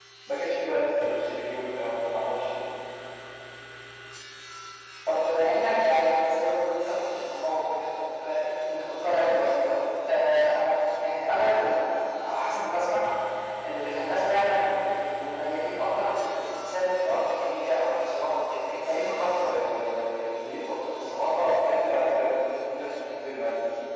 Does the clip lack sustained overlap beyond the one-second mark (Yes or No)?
Yes